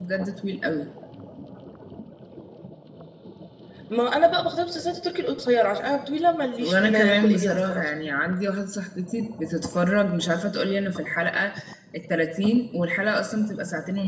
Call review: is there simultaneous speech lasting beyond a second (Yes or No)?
Yes